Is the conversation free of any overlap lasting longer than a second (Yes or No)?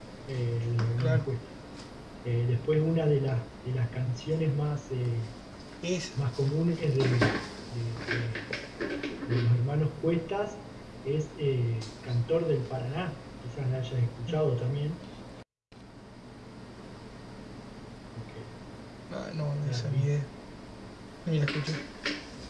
Yes